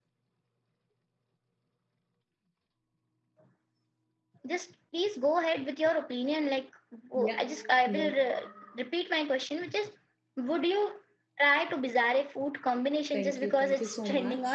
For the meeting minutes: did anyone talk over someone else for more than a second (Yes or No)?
Yes